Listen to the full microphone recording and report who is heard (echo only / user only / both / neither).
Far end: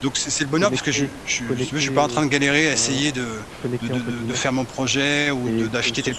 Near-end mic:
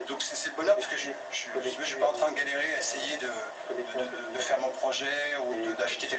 echo only